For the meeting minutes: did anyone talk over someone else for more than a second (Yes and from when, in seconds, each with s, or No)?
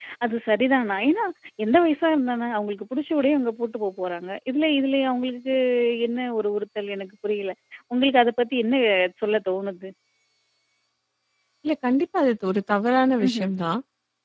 No